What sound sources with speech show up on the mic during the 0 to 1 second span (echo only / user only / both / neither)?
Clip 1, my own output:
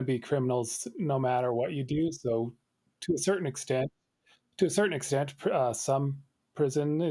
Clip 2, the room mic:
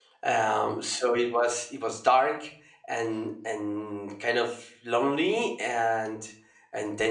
user only